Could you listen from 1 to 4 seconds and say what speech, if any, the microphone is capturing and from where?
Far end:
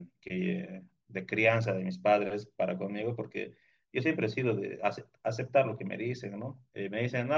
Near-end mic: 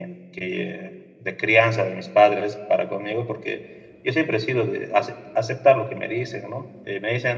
echo only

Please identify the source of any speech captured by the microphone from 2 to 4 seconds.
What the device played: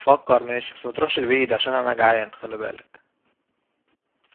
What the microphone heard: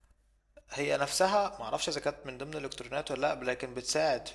user only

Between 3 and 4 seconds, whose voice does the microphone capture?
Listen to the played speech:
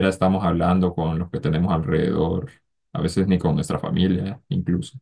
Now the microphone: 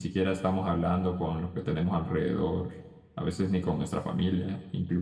echo only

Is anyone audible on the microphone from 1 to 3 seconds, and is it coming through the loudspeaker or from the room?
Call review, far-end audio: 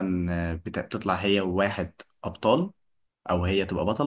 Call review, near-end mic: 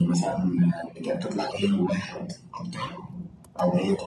echo only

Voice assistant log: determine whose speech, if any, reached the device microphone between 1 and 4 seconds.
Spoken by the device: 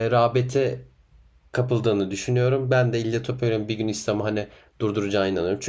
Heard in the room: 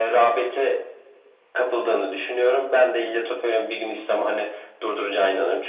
echo only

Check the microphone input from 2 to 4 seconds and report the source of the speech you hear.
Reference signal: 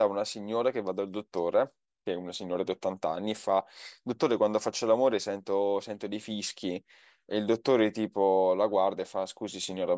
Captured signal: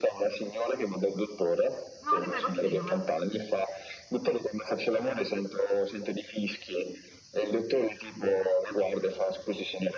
both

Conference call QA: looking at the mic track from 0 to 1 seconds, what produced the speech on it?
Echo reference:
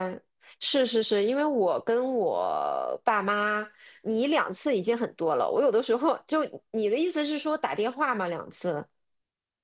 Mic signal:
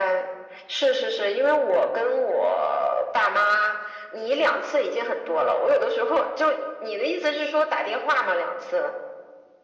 echo only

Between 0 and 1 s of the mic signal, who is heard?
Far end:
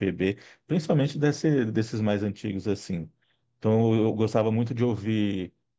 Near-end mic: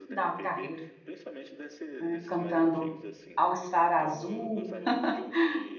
both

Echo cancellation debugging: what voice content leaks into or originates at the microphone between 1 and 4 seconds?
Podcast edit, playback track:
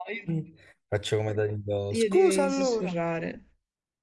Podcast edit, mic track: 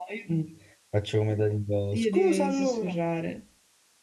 echo only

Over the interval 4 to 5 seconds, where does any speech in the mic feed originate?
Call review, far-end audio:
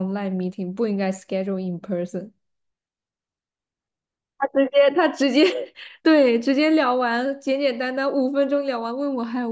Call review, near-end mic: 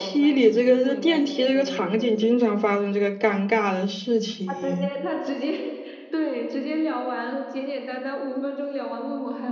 both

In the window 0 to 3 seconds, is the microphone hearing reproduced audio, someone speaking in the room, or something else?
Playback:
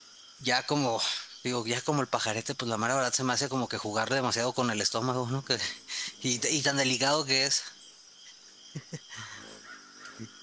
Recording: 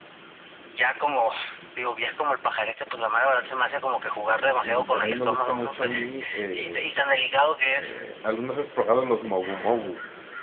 echo only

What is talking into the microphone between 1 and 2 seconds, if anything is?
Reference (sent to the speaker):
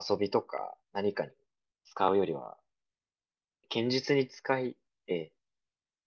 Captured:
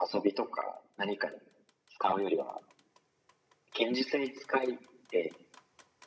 echo only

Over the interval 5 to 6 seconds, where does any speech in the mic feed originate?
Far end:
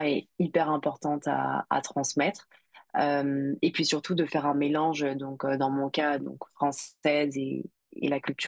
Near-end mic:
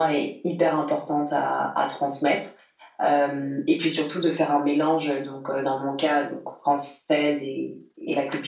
echo only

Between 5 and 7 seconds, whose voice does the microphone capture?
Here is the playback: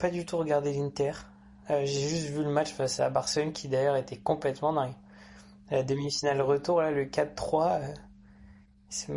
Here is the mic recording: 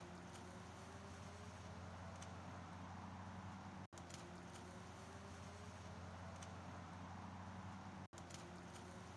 neither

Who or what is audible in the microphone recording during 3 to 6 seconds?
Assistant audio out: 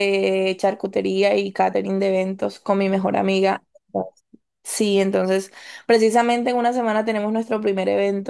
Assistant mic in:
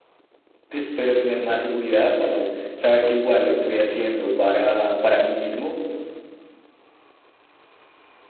user only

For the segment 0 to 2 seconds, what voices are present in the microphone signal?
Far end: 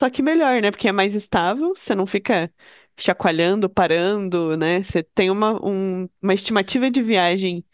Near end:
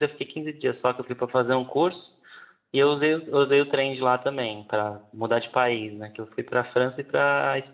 user only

